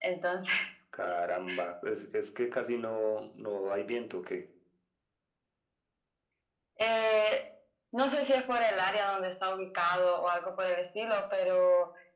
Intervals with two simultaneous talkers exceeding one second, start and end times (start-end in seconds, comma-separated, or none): none